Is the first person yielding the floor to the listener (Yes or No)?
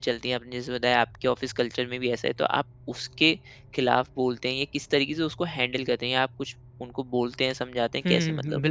Yes